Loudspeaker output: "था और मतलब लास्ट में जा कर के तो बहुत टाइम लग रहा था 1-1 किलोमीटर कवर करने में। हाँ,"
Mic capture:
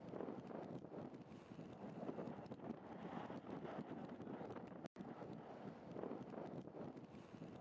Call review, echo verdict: none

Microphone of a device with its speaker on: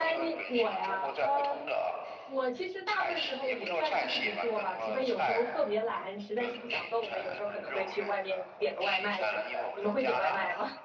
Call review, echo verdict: present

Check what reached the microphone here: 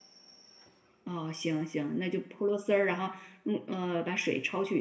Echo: none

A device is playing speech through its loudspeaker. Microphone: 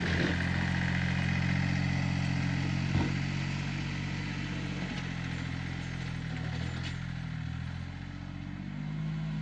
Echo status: none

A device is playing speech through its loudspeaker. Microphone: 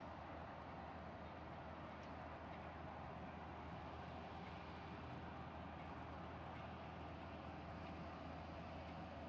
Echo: none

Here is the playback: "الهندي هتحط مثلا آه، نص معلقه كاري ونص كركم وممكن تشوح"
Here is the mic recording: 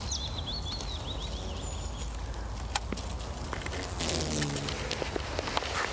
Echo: none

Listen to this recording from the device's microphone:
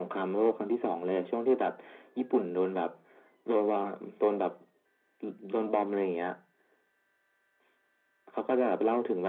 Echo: present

